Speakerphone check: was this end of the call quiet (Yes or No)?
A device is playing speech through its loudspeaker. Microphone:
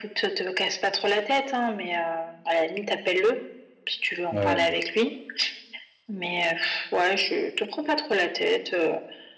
No